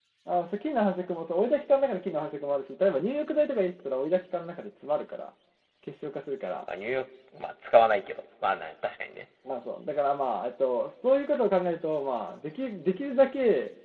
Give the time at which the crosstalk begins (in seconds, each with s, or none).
none